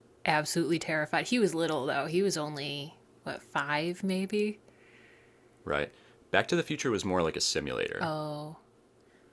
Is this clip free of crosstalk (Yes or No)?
Yes